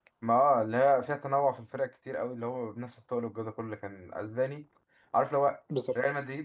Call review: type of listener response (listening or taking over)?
listening